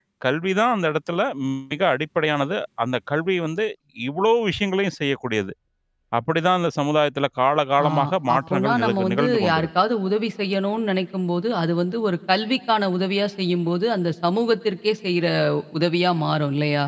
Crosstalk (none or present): present